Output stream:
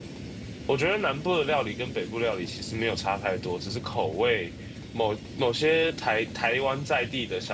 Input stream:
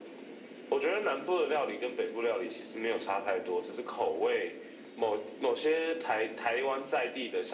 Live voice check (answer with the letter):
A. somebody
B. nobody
B